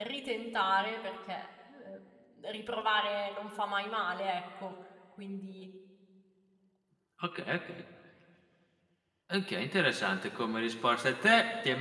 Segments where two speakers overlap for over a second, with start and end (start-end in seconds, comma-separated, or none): none